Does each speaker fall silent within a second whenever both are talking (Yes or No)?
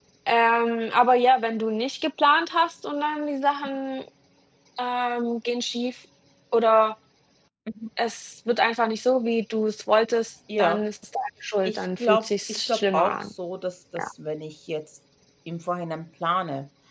No